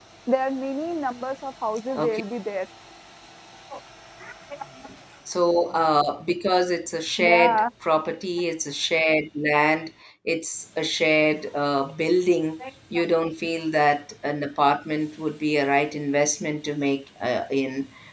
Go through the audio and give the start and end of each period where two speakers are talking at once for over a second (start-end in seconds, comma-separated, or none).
none